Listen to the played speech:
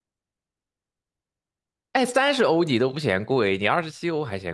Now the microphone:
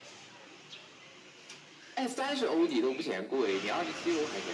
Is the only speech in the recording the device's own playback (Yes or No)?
Yes